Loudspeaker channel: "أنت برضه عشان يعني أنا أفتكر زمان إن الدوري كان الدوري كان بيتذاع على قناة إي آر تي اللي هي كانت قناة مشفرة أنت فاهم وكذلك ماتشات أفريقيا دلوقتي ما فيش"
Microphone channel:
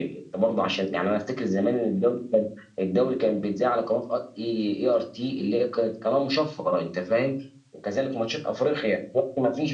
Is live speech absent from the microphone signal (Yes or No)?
Yes